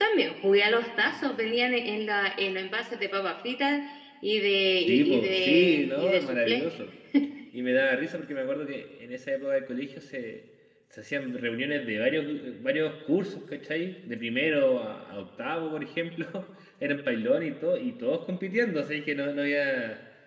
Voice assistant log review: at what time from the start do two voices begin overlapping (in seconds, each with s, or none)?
4.9 s